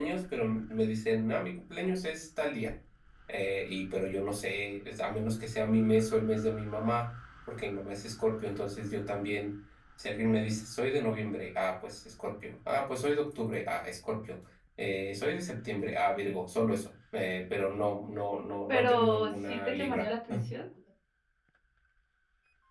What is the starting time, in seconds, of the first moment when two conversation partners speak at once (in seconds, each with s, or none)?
18.7 s